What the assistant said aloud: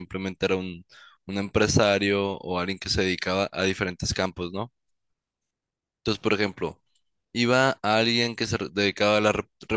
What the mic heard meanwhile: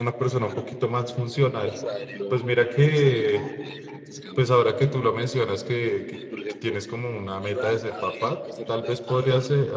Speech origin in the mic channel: both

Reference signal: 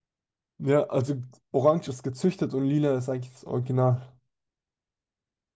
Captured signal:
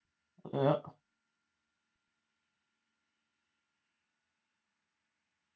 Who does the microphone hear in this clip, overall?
user only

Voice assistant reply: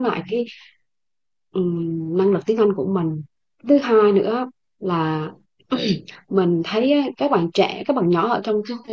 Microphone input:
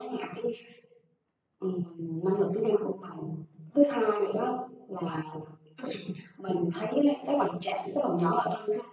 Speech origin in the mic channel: echo only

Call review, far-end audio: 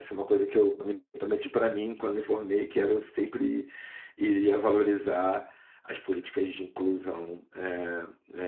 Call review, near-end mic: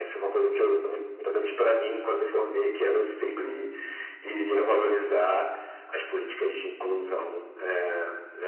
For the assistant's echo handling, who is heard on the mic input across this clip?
echo only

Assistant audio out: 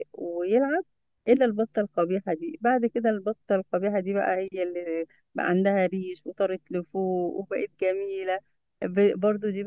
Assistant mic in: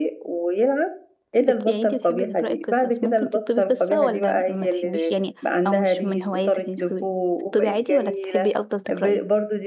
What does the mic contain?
both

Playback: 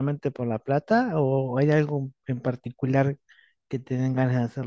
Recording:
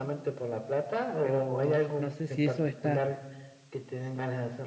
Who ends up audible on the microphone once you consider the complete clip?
both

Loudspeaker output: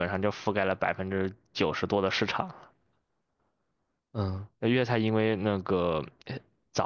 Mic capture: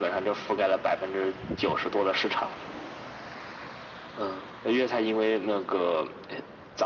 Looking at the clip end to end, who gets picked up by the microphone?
echo only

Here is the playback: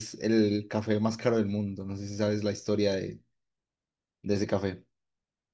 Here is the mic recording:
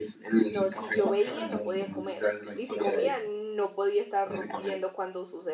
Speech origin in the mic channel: both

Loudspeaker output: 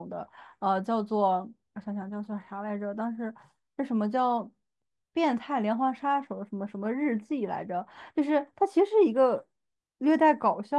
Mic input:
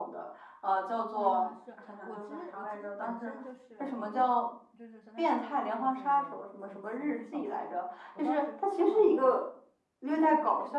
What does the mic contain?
both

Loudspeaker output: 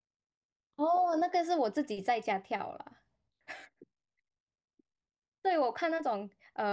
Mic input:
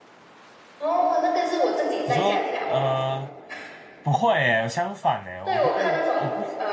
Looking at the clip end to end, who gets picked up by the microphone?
both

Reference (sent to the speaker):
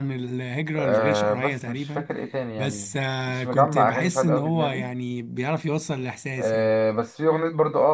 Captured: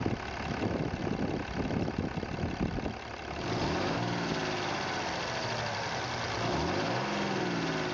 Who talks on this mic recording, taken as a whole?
neither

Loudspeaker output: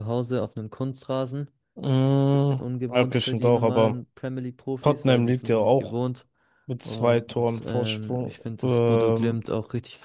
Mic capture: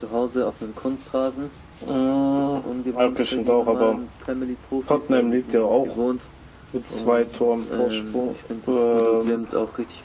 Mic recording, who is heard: echo only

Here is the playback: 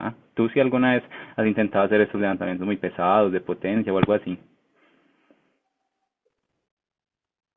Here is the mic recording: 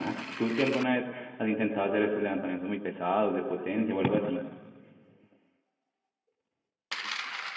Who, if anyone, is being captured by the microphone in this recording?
echo only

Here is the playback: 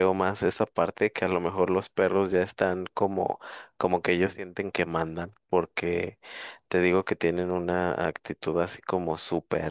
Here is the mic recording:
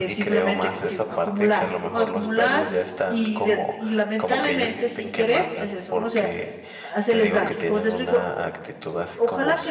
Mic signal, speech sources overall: both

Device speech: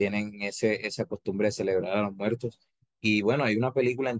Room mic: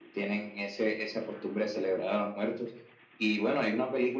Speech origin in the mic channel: echo only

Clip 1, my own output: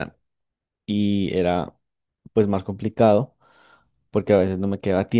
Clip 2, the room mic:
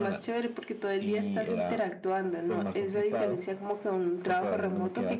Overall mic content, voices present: both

